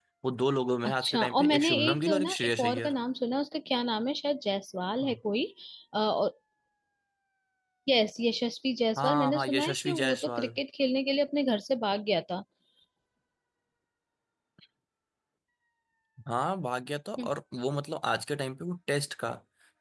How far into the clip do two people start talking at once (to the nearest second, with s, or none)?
1 s